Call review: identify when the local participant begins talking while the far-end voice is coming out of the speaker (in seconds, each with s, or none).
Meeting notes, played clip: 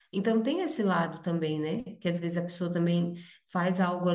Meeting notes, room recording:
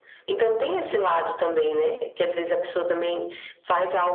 none